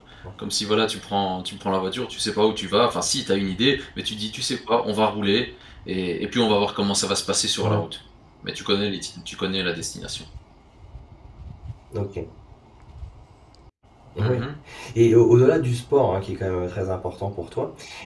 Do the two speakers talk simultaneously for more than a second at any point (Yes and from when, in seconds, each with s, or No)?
No